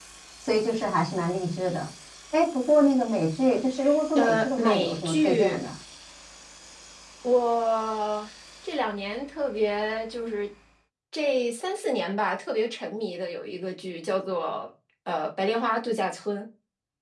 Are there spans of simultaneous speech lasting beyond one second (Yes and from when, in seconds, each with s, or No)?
Yes, from 4.2 s